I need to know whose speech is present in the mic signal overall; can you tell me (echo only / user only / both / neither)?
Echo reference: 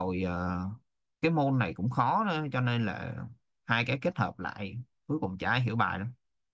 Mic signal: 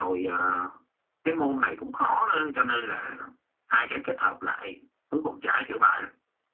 echo only